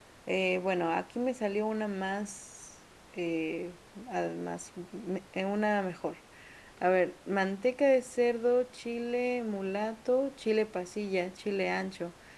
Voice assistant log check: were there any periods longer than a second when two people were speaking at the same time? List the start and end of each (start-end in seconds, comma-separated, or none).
none